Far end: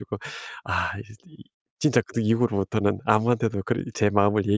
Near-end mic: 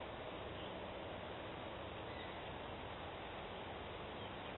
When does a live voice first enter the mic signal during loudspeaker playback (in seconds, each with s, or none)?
none